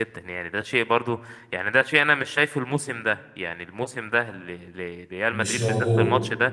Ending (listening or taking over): listening